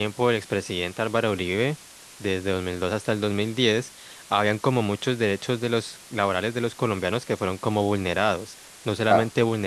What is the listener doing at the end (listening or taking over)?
listening